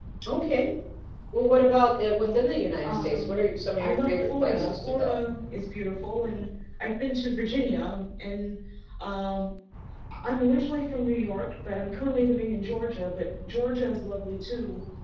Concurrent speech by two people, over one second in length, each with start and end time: 3.8-5.1

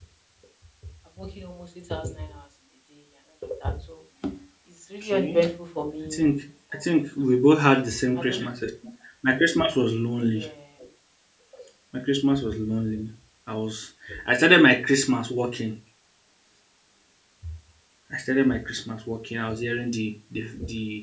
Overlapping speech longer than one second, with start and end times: none

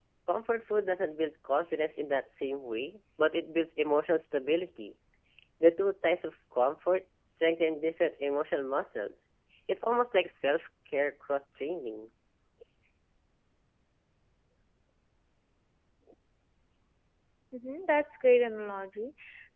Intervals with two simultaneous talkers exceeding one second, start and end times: none

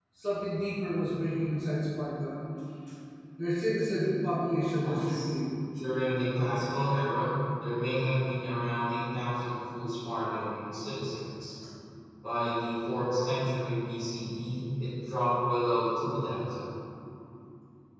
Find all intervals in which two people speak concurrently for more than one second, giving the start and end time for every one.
none

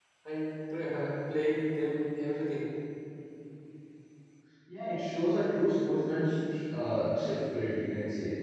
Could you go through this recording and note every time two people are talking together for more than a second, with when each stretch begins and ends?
none

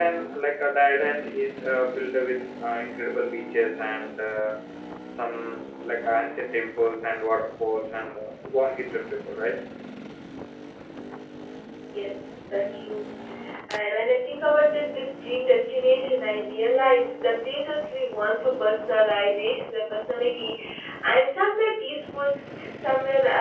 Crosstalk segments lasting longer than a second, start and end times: none

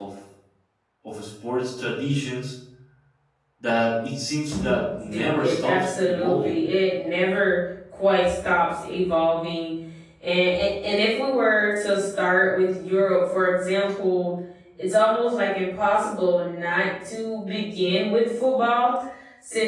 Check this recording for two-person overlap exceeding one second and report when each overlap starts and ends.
5.0-6.6

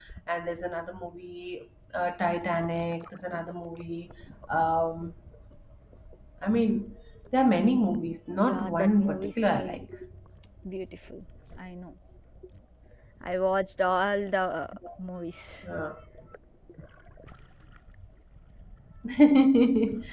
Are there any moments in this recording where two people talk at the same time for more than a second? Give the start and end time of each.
8.5-9.8

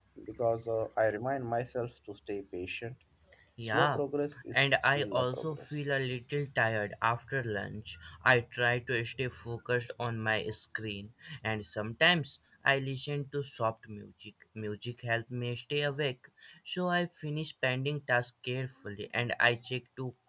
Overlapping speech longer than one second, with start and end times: 4.5-5.8

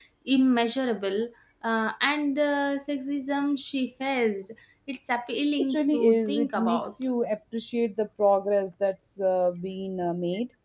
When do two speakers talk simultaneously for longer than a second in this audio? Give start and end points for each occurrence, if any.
5.6-6.9

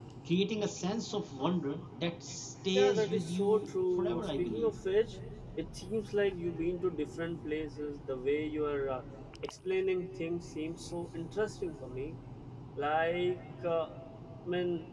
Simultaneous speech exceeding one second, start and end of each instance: 2.7-4.7

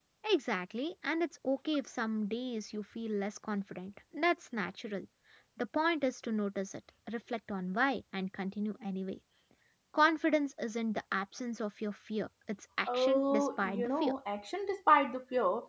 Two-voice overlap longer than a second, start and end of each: 12.9-14.1

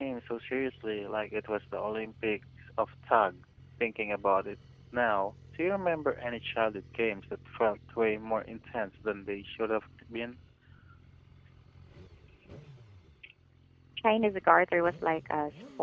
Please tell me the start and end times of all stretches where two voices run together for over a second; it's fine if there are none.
none

